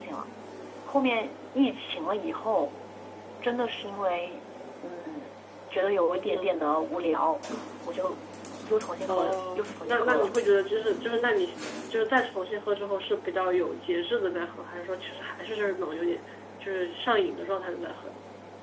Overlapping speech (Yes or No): Yes